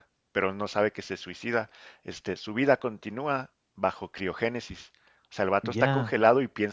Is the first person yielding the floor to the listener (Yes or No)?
No